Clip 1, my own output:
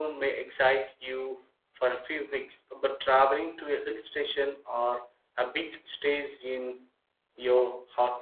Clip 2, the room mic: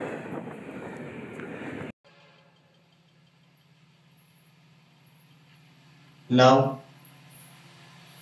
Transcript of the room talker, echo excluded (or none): Love,